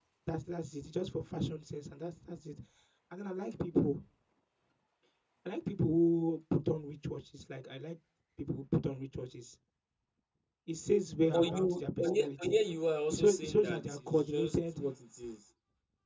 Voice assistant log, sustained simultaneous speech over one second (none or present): present